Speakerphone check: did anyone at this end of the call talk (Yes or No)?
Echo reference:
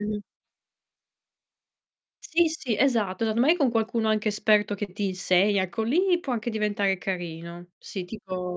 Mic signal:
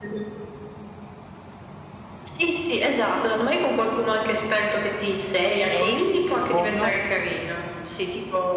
Yes